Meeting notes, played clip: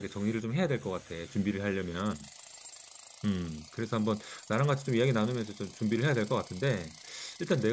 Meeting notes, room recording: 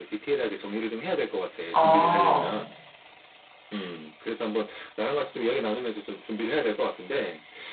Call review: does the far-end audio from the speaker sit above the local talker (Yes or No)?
No